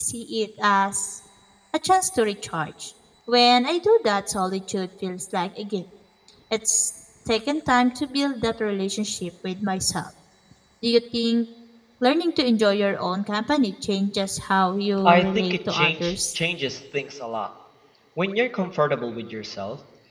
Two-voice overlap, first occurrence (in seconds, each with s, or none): 15.0 s